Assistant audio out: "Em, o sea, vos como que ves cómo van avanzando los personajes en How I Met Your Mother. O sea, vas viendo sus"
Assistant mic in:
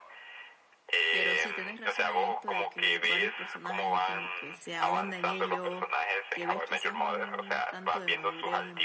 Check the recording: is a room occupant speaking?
Yes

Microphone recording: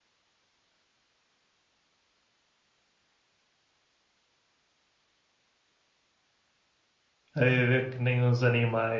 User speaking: Yes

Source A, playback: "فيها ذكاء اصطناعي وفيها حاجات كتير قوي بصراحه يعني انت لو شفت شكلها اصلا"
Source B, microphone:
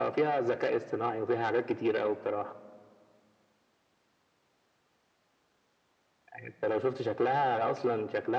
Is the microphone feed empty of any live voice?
Yes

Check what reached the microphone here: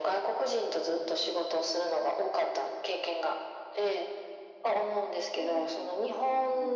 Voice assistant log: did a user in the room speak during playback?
Yes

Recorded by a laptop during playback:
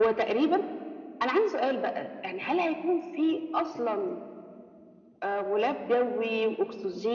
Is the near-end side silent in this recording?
Yes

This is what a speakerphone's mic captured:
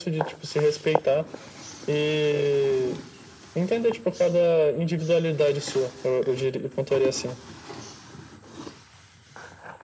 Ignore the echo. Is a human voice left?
No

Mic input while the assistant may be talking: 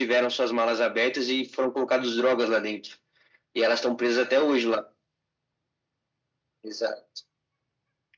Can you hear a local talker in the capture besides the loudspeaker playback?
No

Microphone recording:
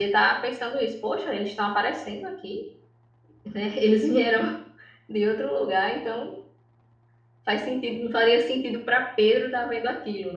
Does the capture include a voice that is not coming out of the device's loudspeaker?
Yes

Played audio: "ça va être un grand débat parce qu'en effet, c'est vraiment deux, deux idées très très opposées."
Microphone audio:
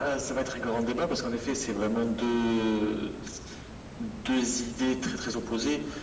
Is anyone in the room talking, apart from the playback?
No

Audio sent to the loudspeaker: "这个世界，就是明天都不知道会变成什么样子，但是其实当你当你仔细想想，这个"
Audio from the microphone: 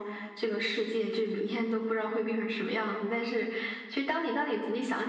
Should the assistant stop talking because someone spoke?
No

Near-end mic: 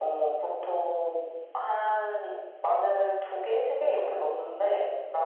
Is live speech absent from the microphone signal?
Yes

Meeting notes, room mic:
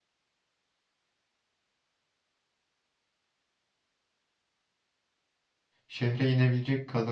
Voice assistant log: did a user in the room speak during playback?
Yes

